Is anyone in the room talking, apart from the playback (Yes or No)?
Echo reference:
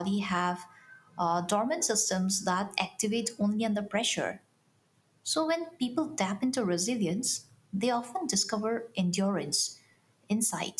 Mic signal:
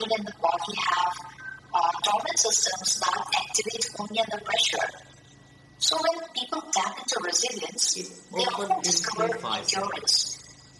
Yes